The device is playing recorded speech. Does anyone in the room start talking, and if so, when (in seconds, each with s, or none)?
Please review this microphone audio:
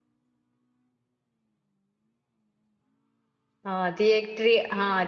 3.7 s